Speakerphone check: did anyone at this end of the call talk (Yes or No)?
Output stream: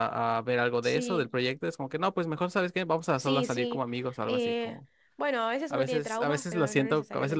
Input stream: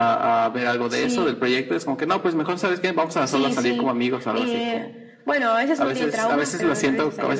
No